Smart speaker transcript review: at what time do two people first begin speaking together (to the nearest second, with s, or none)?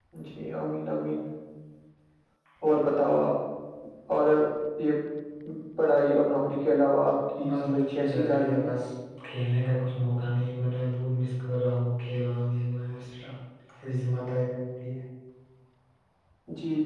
7 s